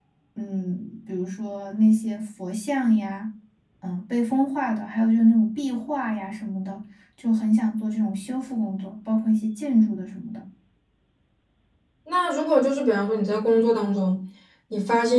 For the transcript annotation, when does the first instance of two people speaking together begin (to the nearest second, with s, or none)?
none